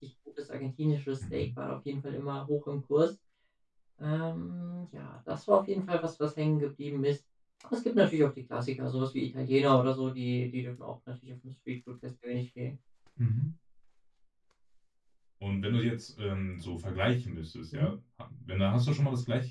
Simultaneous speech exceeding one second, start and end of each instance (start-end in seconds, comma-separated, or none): none